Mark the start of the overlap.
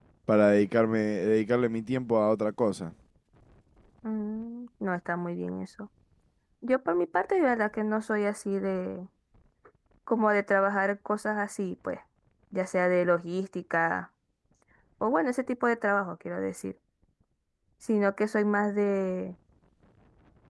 none

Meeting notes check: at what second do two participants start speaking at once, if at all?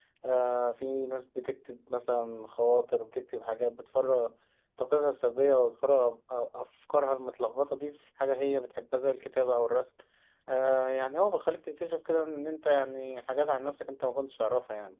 none

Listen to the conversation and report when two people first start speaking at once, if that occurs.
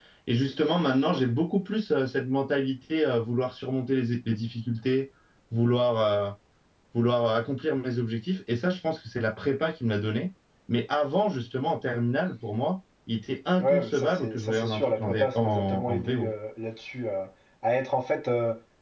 13.6 s

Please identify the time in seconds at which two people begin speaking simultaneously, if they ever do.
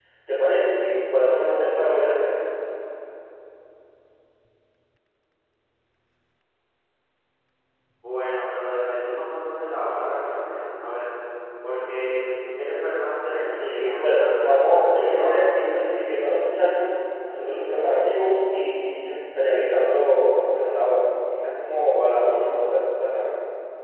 13.3 s

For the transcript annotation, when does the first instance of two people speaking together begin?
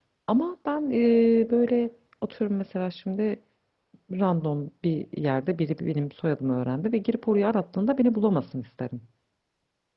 none

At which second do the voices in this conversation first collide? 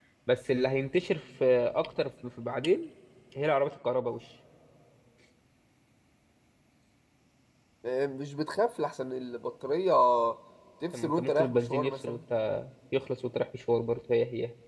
10.9 s

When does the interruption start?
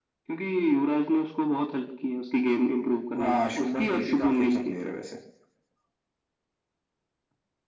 3.1 s

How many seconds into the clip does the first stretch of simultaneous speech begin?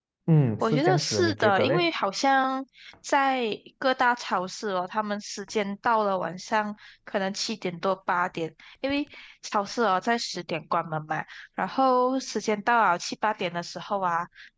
0.6 s

